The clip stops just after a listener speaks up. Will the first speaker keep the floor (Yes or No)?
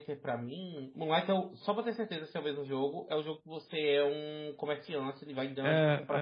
Yes